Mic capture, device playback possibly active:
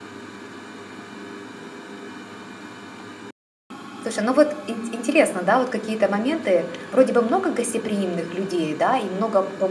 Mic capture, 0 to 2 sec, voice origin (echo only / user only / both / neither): neither